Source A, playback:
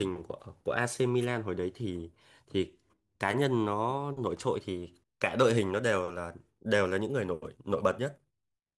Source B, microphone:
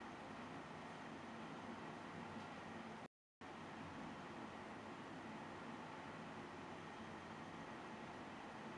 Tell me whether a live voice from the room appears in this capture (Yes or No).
No